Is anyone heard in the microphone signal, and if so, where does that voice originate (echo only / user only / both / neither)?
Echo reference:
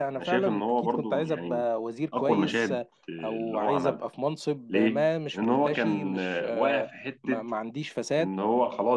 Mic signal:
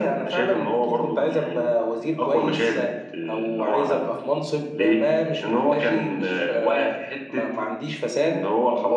echo only